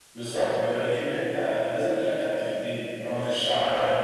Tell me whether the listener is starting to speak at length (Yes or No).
No